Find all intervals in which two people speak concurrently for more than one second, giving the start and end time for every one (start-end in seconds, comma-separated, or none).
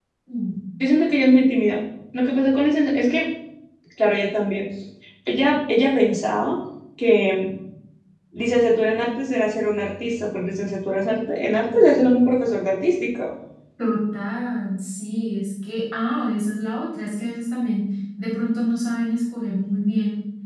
none